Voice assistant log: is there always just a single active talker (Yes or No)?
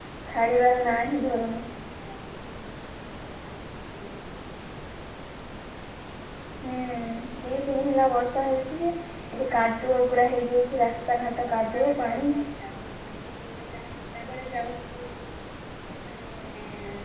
No